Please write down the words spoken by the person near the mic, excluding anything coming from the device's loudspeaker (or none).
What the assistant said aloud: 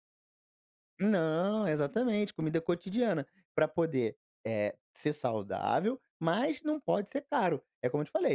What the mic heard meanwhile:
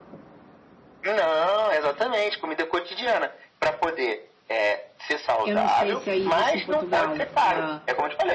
eu não sei, se aí existe em Portugal, hã,